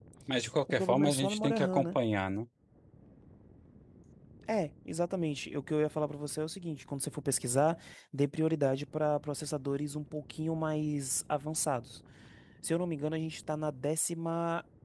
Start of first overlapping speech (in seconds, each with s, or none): 0.7 s